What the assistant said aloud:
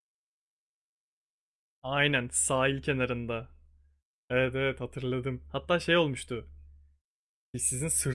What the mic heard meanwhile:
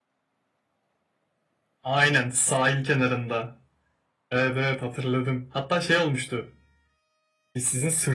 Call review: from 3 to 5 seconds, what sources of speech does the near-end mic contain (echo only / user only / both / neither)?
echo only